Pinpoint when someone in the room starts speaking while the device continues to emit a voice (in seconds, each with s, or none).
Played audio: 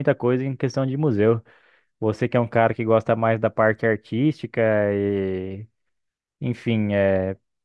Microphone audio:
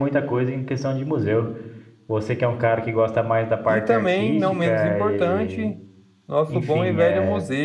3.7 s